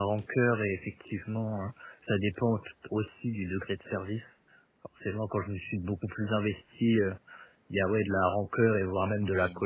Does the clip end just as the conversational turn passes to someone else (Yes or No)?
No